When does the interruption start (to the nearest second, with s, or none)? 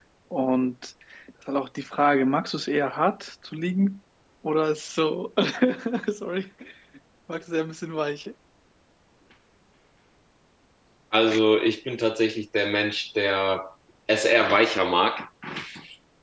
none